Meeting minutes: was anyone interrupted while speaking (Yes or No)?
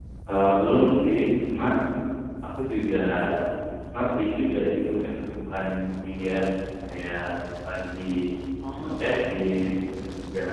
Yes